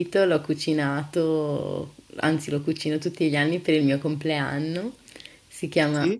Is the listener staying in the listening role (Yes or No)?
Yes